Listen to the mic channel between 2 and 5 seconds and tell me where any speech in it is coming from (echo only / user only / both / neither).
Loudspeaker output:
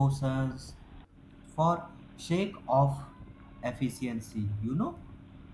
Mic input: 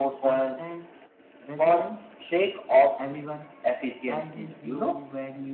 both